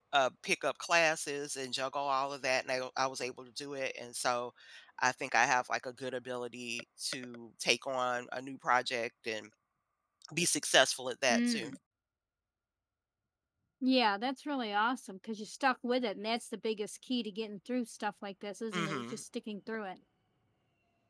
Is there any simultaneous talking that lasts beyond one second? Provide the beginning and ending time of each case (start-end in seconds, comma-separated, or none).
none